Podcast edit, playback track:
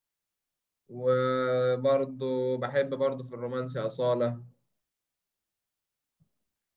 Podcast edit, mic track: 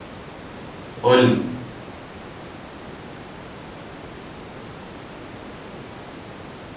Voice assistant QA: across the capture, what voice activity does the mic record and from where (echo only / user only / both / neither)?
user only